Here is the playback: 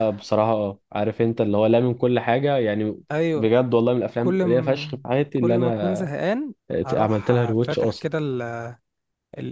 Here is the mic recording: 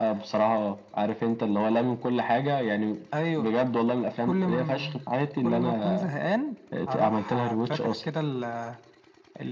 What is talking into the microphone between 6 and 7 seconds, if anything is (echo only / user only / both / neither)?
echo only